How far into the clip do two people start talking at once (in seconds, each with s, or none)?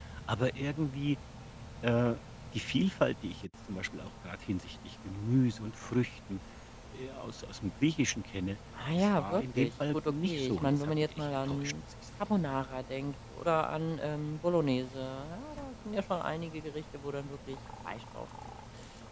8.8 s